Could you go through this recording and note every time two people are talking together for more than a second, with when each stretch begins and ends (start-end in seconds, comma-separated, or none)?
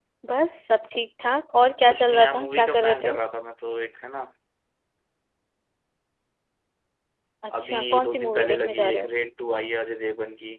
1.9-3.1, 7.5-9.1